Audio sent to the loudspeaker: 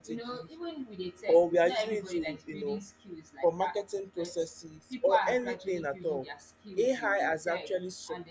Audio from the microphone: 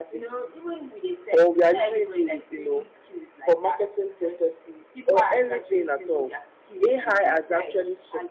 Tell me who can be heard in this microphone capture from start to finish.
echo only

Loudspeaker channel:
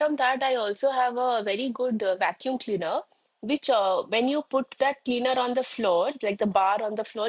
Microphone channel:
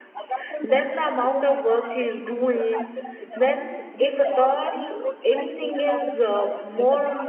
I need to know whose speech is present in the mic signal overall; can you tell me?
both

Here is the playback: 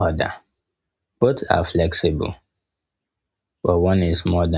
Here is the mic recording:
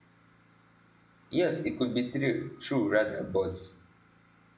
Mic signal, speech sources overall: user only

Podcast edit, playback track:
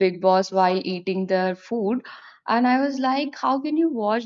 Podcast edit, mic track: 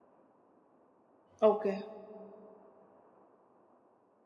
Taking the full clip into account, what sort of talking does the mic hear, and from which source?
user only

